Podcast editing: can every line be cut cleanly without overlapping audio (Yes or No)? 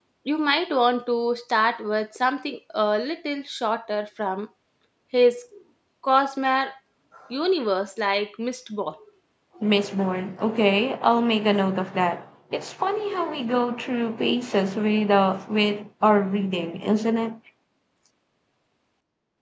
Yes